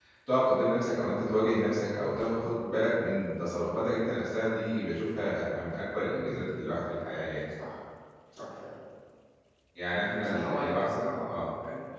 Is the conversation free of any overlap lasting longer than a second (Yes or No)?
No